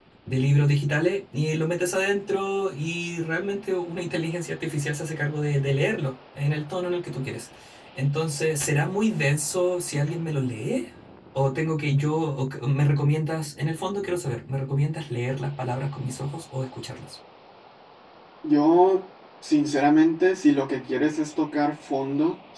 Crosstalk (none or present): none